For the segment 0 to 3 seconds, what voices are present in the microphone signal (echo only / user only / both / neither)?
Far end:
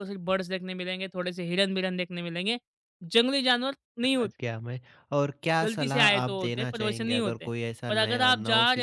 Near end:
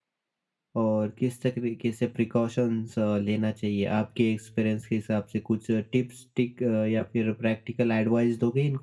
user only